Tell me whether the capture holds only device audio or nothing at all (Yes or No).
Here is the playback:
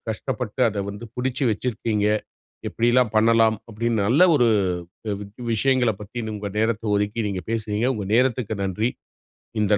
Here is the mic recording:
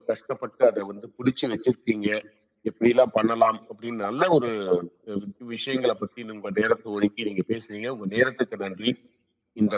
Yes